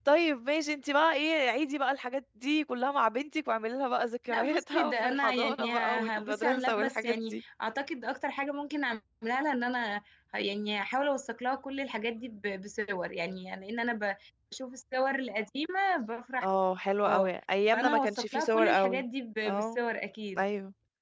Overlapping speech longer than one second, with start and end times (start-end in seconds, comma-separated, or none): 4.3-7.4, 17.7-19.0